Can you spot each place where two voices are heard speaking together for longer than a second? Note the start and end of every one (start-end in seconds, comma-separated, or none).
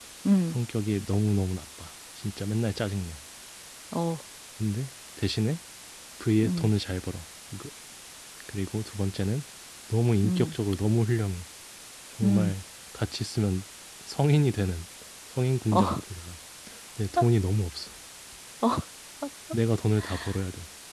none